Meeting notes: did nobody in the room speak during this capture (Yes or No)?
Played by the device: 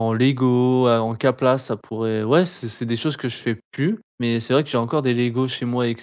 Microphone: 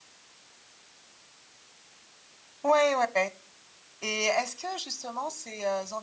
No